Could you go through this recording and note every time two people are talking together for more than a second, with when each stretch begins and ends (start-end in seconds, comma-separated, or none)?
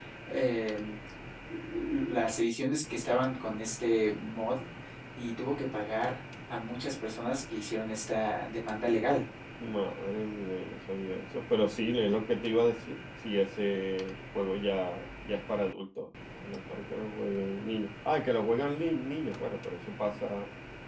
none